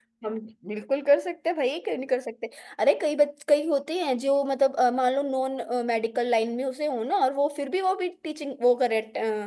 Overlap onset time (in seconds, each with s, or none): none